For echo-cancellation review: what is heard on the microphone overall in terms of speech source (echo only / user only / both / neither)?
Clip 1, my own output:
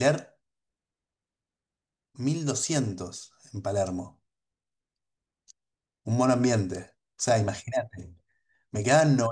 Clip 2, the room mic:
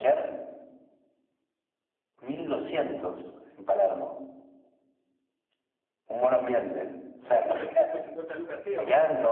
both